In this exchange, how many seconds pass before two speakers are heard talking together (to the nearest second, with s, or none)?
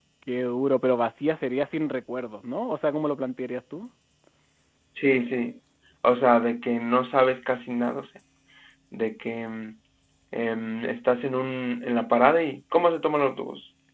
none